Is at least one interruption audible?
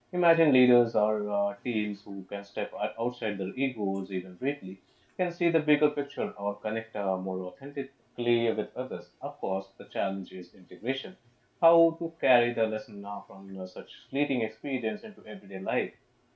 No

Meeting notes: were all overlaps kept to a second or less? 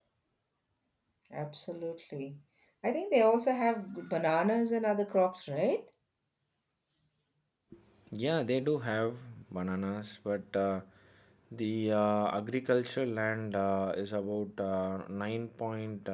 Yes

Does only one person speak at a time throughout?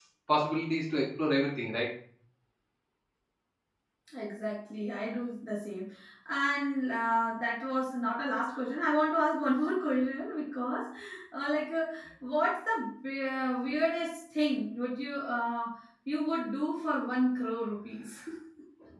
Yes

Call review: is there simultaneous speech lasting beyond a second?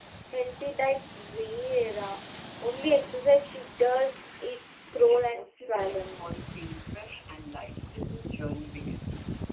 Yes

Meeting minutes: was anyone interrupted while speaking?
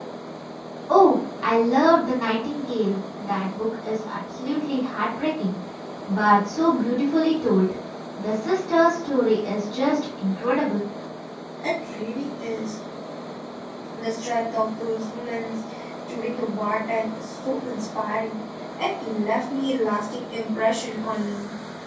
No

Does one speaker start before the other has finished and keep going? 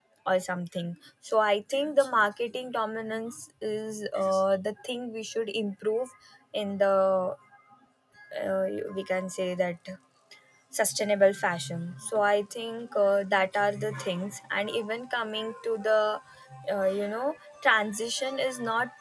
No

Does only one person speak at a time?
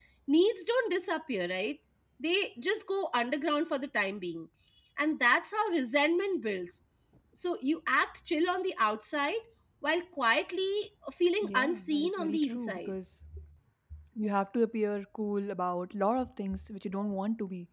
No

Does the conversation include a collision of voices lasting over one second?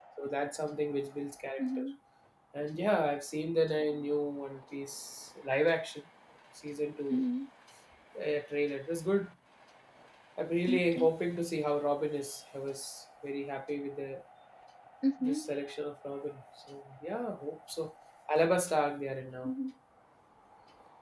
No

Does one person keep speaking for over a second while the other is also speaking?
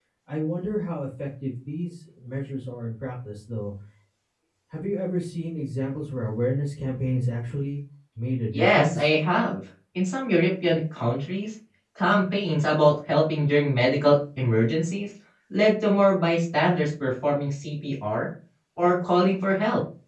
No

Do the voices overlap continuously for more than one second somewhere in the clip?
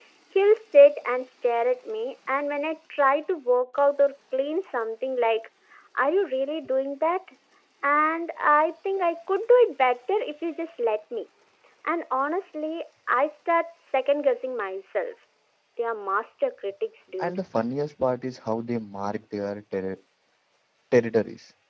No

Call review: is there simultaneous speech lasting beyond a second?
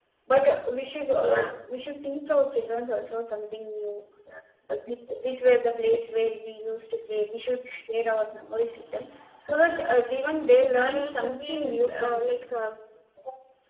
Yes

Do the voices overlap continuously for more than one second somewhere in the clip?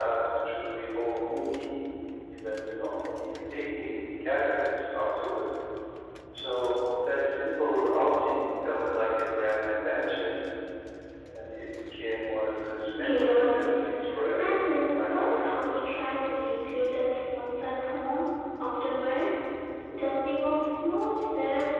Yes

